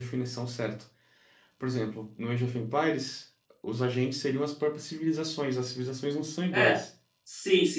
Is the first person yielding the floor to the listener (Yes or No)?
Yes